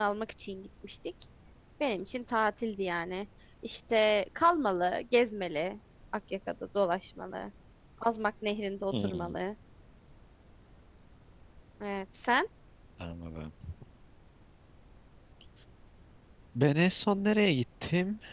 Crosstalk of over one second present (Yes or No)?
No